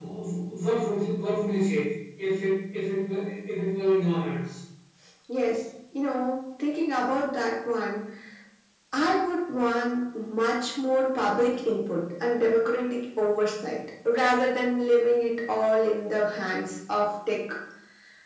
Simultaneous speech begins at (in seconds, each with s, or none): none